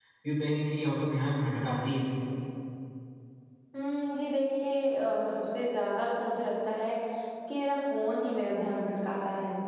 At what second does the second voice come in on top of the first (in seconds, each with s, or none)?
none